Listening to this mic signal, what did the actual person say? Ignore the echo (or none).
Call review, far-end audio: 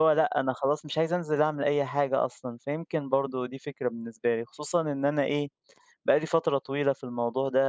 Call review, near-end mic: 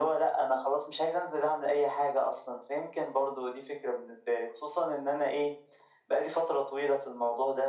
none